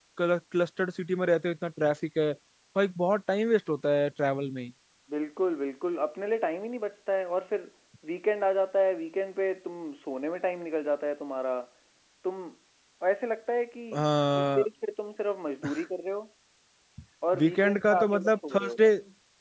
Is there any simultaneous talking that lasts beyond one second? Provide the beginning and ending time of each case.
17.4-18.8

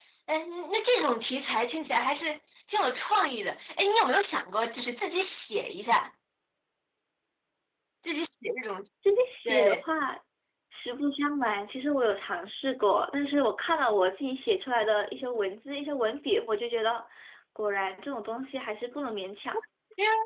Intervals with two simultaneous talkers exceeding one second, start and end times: none

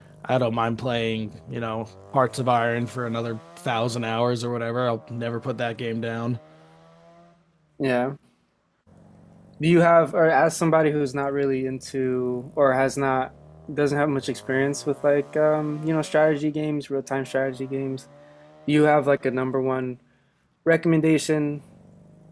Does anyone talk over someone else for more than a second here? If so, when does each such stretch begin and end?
none

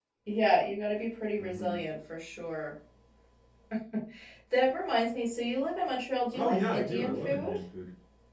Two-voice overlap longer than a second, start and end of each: 6.3-7.6

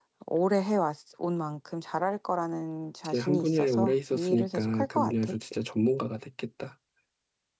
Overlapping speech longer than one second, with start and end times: 3.0-5.3

